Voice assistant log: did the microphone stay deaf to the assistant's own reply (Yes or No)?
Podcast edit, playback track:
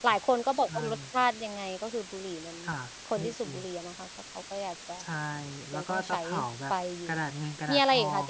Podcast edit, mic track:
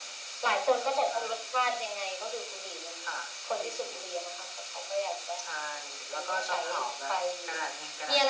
No